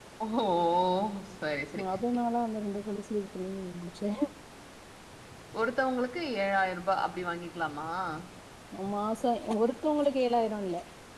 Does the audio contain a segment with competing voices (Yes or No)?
No